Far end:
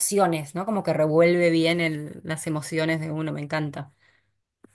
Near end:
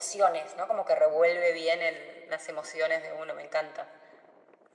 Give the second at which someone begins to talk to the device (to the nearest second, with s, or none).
none